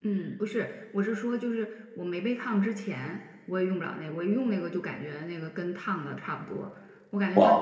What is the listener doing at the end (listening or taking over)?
listening